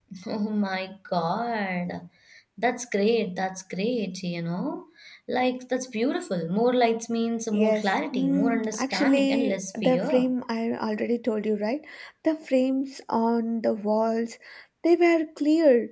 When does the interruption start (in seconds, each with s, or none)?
7.5 s